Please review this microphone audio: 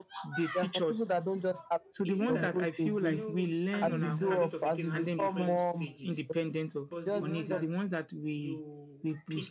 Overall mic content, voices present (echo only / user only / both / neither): both